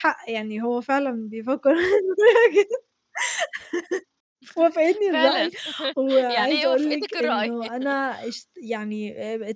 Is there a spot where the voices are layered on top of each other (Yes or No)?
Yes